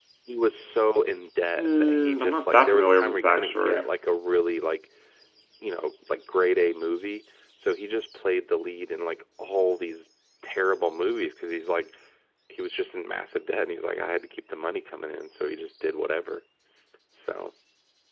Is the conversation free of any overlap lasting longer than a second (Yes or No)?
No